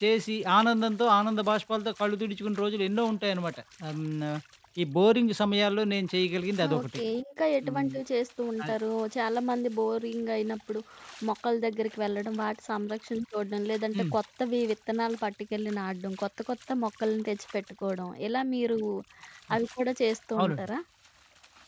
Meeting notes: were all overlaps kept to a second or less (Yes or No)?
Yes